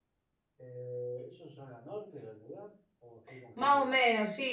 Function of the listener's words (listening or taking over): taking over